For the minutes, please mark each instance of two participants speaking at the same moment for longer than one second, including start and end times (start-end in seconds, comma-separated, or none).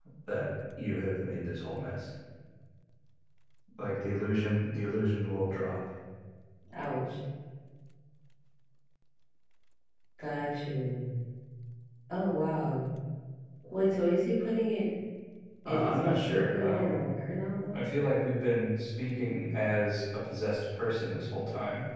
15.6-17.0